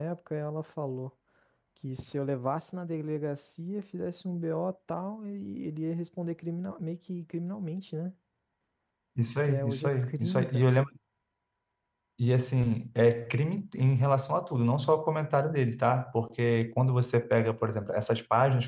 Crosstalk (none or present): present